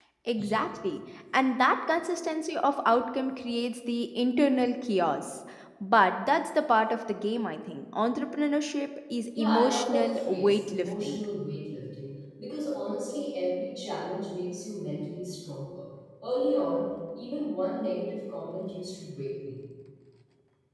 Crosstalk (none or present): present